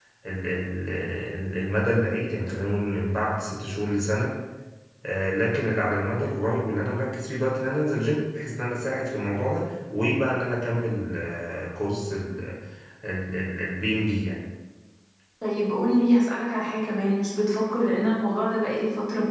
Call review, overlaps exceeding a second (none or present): none